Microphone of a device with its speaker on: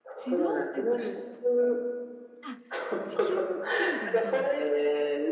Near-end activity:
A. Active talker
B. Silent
A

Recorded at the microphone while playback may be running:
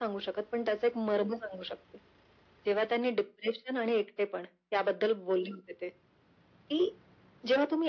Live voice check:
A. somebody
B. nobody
B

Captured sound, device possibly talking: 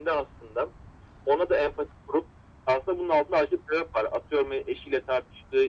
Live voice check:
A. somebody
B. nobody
B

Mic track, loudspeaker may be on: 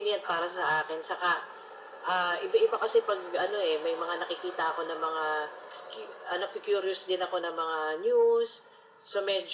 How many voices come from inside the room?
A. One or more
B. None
B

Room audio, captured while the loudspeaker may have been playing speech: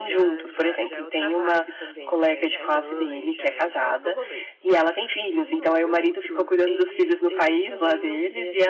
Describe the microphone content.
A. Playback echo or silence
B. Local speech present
B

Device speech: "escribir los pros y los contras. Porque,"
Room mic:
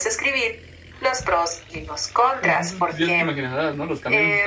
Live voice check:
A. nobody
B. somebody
B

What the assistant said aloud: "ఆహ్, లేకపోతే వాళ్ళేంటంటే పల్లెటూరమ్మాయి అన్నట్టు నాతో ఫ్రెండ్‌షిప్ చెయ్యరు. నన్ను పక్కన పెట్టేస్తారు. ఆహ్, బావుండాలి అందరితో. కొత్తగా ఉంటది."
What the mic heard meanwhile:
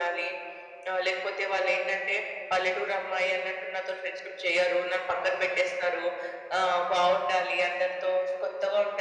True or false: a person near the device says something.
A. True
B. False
B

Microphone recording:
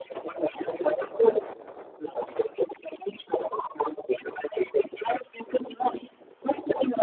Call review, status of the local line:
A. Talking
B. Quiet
B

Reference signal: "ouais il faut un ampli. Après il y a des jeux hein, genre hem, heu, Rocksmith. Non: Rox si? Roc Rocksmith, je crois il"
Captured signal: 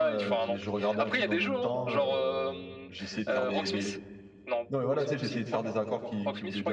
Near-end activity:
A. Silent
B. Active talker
B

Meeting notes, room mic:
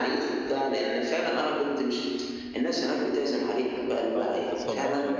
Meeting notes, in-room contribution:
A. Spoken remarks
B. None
A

